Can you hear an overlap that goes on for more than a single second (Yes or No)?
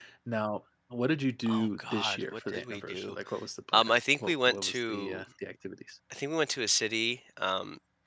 Yes